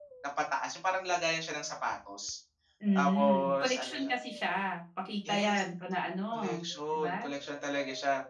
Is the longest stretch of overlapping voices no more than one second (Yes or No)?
No